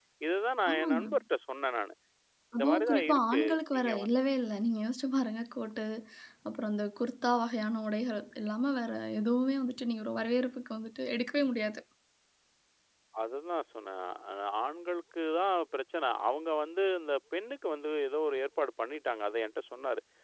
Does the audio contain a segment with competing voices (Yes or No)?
Yes